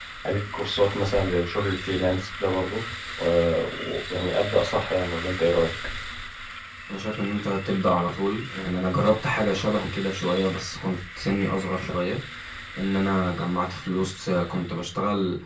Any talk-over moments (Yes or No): No